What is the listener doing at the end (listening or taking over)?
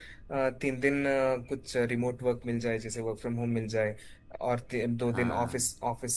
listening